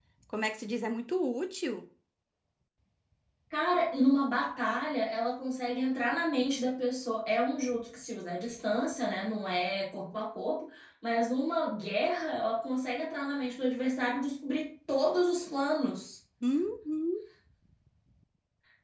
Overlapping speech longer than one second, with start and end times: none

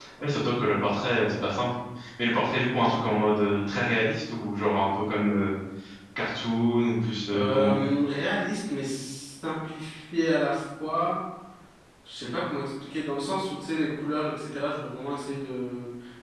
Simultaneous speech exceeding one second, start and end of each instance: none

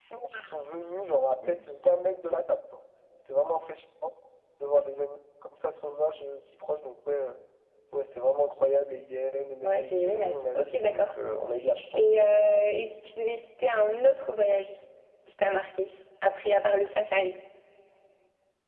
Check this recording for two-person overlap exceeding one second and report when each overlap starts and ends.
9.6-11.1

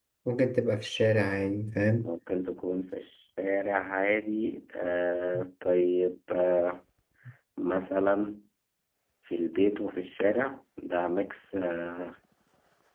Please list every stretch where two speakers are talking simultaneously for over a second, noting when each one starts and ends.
none

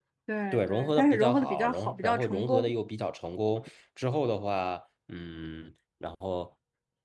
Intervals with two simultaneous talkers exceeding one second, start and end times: 0.5-2.7

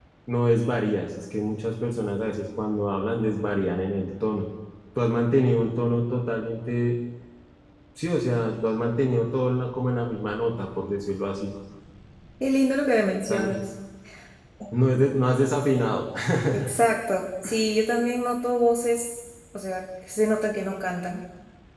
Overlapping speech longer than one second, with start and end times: none

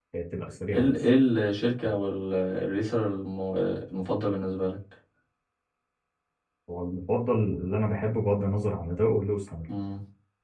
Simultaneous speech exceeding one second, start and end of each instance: none

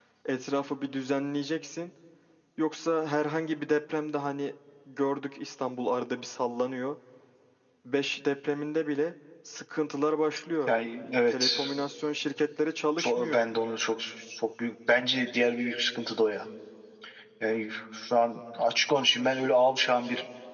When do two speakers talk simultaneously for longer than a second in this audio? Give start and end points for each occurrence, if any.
none

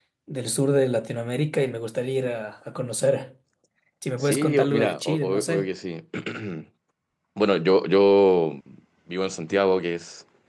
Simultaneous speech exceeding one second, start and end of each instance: 4.2-5.7

